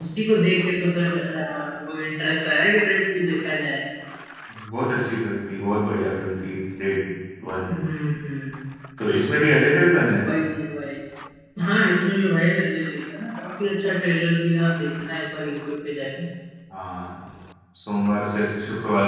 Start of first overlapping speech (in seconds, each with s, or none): none